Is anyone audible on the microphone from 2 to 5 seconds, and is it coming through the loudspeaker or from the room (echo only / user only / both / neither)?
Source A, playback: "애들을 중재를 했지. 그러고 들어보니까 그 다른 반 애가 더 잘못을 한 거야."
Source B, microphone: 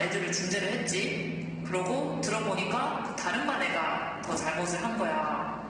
echo only